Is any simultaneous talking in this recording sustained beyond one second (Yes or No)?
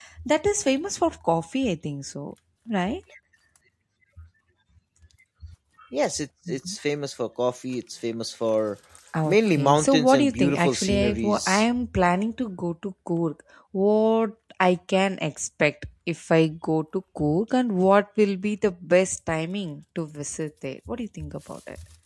Yes